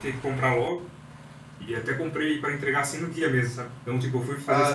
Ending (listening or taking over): listening